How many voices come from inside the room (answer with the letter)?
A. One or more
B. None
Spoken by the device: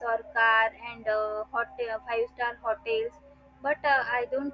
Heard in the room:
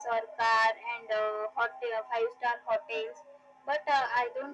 B